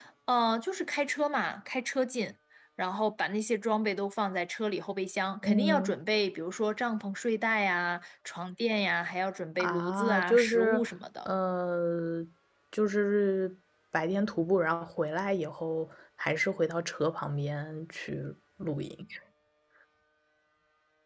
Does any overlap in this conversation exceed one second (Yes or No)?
Yes